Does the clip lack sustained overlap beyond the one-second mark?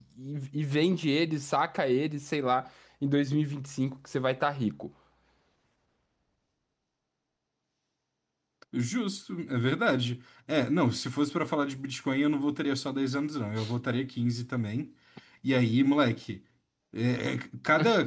Yes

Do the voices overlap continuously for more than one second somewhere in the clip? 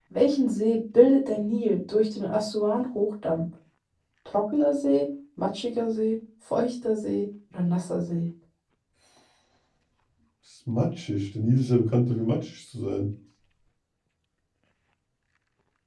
No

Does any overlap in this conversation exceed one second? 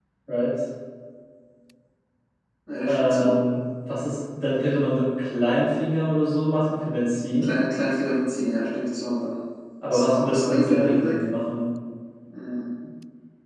Yes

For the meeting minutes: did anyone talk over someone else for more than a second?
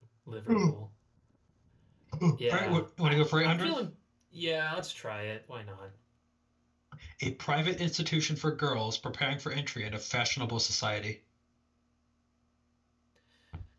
Yes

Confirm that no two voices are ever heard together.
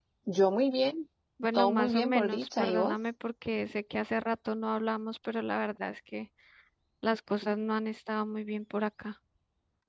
No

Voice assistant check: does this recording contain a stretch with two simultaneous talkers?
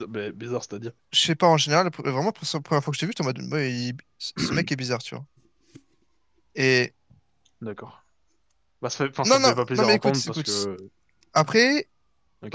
Yes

